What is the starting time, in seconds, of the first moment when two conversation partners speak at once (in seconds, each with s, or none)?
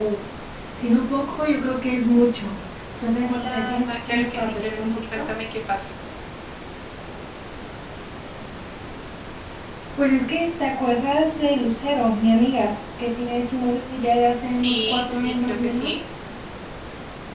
3.2 s